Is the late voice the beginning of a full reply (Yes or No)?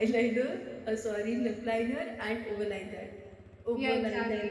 Yes